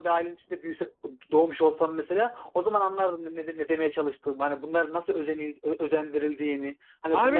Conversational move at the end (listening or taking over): taking over